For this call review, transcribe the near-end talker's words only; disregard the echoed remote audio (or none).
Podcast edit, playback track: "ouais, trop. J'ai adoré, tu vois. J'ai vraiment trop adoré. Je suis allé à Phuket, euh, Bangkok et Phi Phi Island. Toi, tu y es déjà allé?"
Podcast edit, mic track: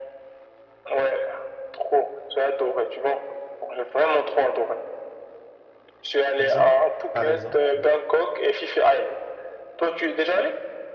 disons, par exemple.